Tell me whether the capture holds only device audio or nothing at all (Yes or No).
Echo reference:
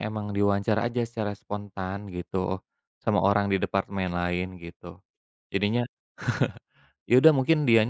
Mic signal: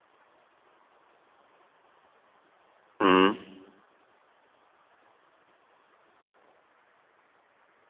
No